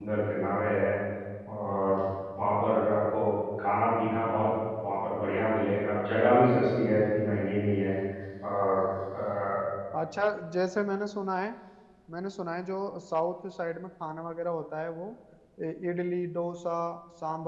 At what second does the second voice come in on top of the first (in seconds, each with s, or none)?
none